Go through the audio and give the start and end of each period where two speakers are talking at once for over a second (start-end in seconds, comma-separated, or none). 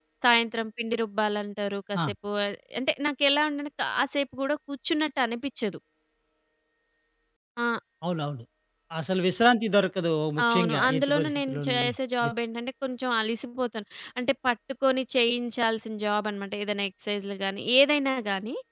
10.5-11.9